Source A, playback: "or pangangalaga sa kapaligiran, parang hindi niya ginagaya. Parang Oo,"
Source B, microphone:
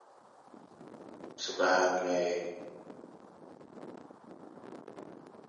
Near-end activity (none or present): present